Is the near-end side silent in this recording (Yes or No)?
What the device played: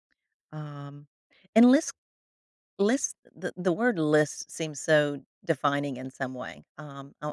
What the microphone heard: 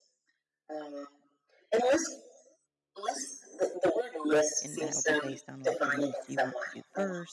No